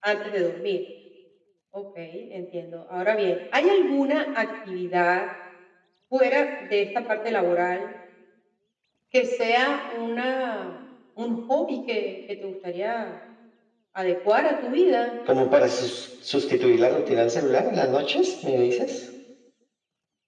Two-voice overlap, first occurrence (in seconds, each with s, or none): none